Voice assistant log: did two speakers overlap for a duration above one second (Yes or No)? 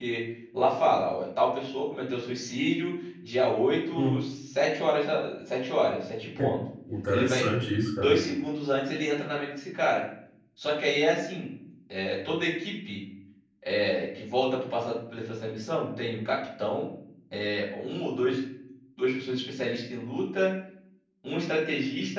No